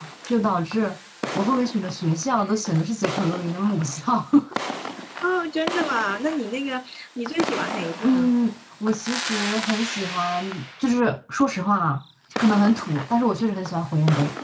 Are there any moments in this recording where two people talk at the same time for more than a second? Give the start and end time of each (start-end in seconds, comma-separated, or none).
none